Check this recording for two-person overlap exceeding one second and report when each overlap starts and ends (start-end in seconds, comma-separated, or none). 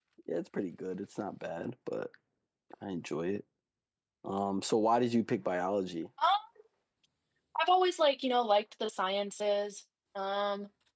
none